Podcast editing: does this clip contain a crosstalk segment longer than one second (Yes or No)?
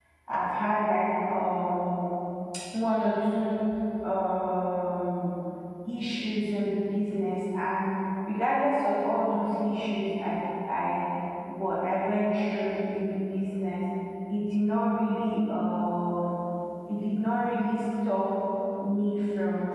No